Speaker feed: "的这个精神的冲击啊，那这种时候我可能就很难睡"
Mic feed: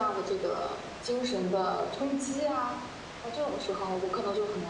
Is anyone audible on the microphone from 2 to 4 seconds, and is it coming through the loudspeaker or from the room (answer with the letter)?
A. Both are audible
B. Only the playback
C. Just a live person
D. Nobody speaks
B